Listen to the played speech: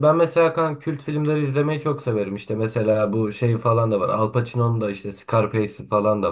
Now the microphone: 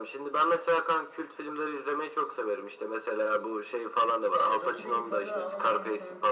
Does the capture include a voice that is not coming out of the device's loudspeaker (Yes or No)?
Yes